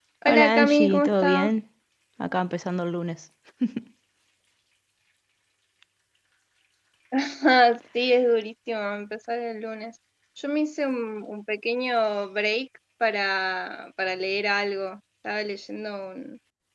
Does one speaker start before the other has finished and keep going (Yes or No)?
Yes